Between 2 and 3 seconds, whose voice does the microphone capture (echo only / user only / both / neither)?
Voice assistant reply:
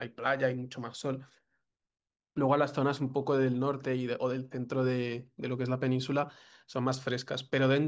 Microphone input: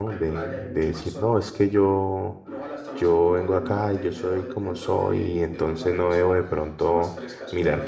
both